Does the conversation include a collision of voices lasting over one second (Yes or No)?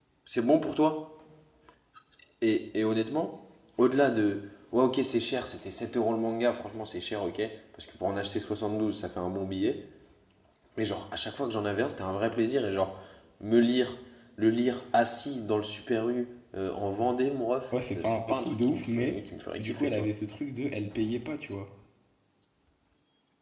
Yes